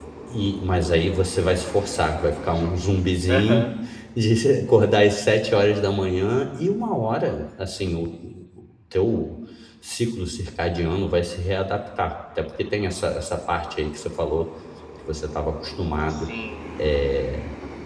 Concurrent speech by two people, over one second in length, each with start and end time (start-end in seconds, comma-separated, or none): none